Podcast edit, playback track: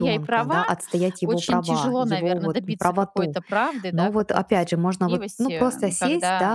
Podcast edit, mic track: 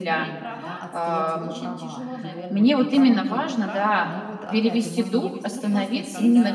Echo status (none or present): present